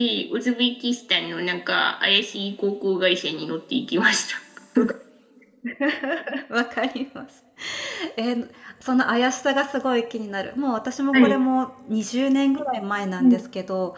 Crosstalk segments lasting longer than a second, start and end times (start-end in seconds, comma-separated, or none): none